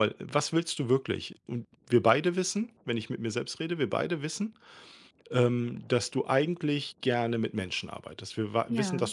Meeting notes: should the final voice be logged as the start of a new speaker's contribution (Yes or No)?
No